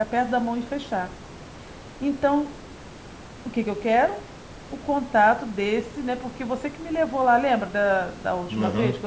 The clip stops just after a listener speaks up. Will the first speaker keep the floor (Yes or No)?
No